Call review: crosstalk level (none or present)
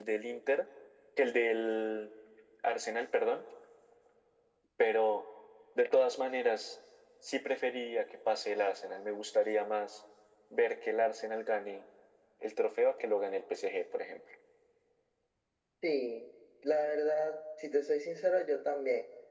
none